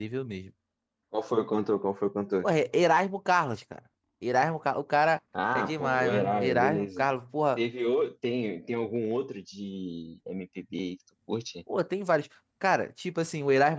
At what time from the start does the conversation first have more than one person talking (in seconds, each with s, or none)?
5.3 s